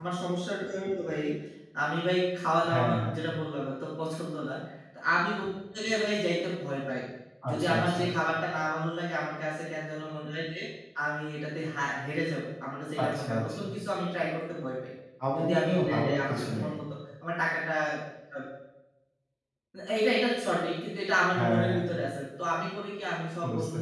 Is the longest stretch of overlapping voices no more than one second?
No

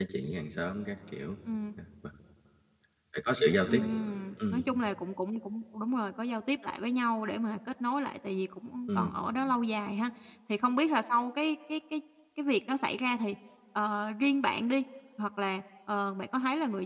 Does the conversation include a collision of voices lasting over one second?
No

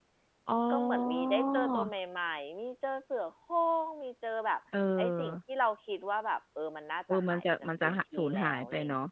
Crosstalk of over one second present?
Yes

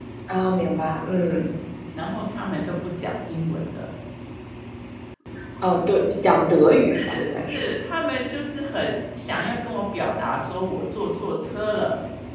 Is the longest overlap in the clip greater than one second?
No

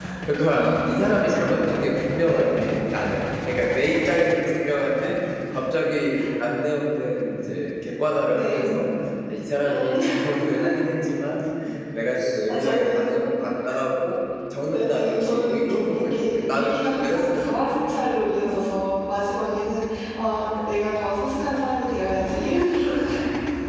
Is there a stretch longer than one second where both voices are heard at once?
Yes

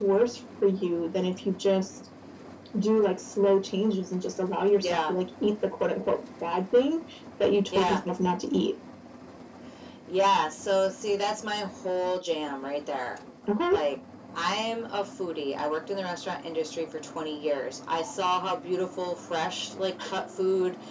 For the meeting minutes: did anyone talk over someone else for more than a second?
No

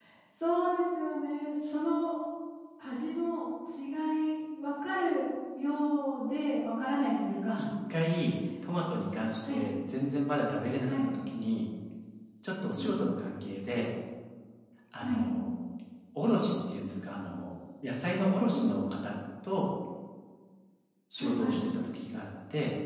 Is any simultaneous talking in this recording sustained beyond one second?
No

